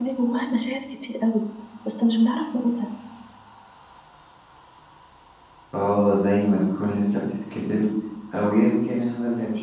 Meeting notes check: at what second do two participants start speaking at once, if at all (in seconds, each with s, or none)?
none